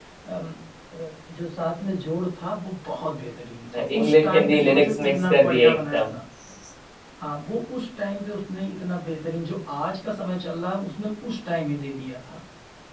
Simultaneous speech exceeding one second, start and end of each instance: 4.0-6.1

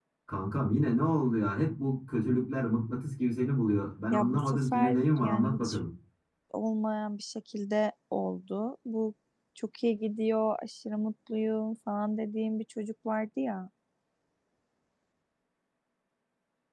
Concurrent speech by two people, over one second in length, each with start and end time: 4.1-5.8

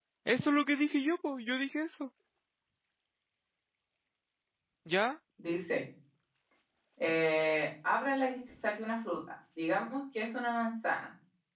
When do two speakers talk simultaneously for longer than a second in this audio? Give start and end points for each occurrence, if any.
none

